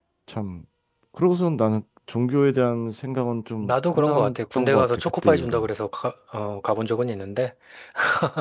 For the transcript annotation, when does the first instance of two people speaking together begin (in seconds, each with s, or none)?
3.6 s